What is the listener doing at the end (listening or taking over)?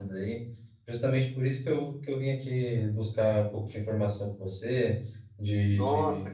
listening